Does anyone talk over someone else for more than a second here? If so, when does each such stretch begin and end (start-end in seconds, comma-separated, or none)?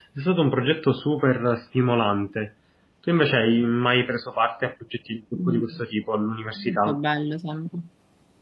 none